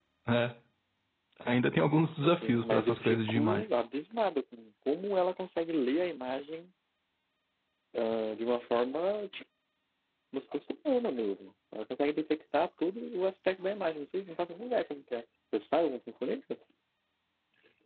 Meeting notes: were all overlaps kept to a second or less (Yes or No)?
No